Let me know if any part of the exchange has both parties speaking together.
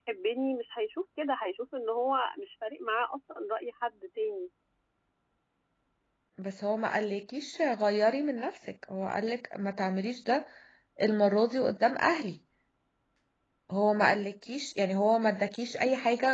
No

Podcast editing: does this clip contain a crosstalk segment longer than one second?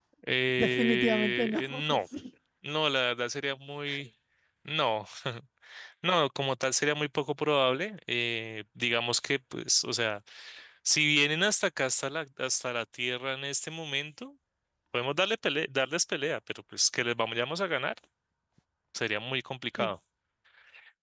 Yes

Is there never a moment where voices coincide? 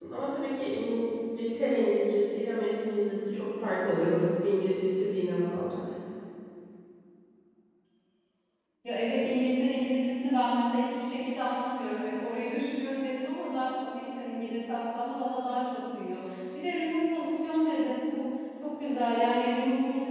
Yes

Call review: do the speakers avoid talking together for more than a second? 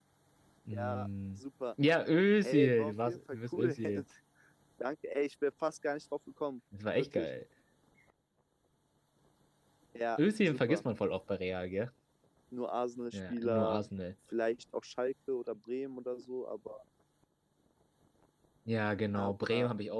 No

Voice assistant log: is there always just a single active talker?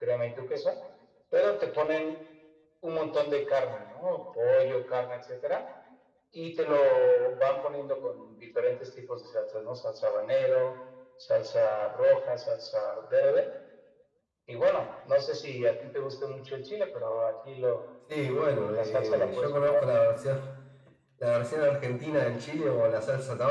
No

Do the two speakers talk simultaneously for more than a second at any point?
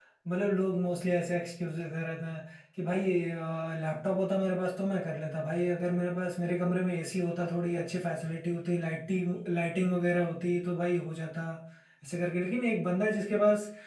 No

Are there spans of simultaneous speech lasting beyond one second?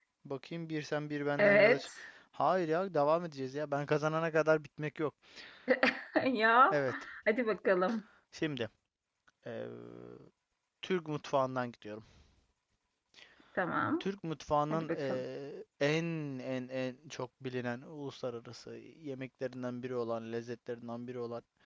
No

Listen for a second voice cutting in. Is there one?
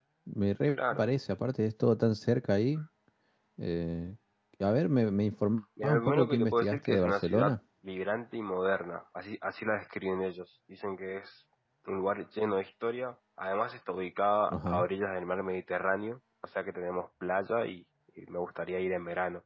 Yes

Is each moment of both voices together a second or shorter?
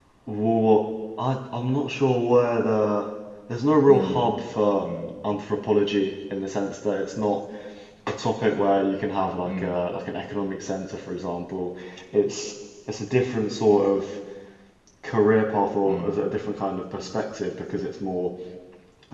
Yes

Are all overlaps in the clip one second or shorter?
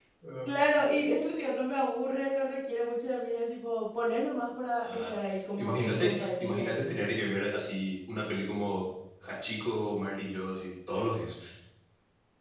No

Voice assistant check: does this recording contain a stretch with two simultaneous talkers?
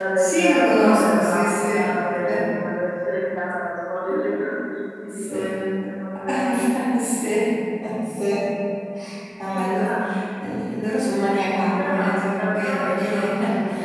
Yes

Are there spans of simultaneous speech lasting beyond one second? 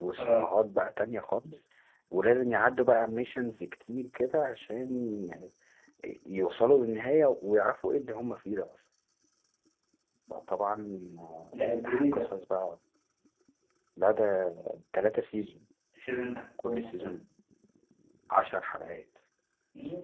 No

